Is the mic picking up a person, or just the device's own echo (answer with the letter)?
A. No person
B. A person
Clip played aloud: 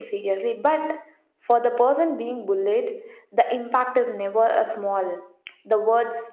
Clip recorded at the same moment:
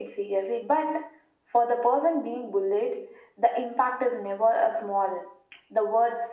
A